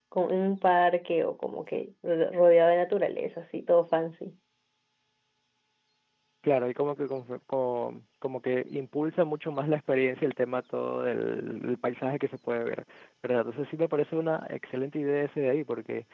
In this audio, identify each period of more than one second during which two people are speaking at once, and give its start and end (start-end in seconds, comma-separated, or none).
none